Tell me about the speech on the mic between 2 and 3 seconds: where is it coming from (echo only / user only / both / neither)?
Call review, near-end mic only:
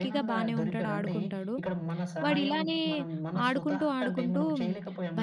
both